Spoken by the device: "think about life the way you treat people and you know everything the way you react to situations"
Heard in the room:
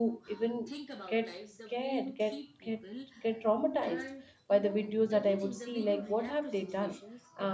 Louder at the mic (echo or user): user